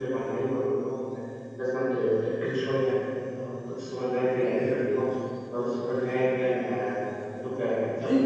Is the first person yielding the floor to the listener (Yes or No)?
Yes